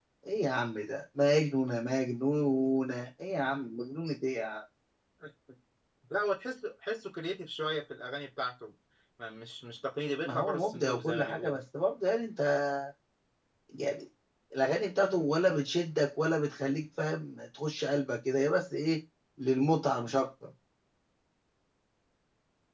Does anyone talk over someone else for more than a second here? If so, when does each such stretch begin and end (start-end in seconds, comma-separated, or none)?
10.2-11.6